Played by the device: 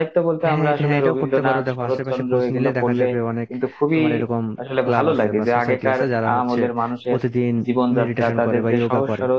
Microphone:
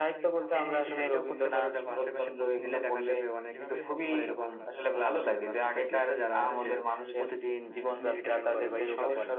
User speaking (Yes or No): Yes